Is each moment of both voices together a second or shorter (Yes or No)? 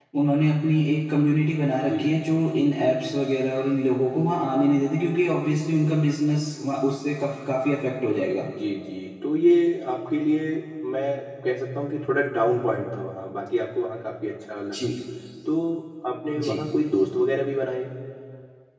Yes